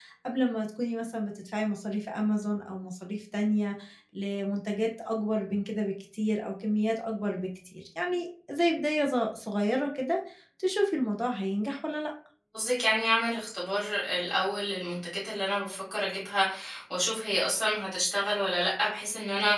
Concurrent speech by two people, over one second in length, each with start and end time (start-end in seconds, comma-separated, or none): none